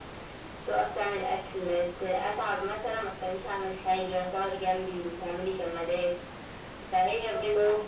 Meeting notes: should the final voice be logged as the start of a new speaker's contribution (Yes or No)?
No